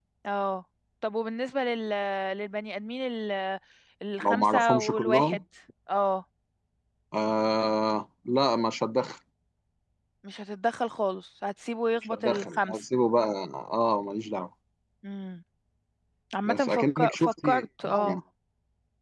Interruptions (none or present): present